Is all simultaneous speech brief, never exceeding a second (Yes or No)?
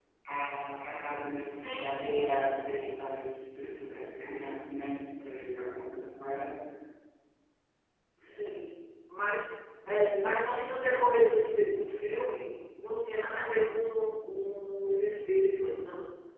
No